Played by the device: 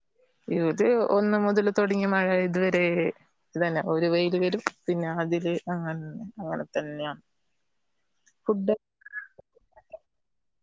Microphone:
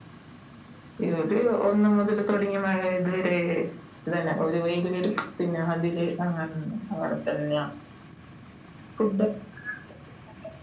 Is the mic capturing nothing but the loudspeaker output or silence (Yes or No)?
Yes